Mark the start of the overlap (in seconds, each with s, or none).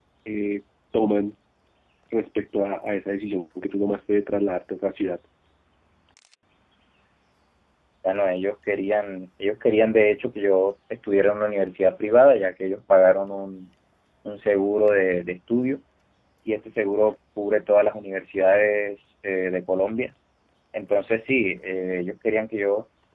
none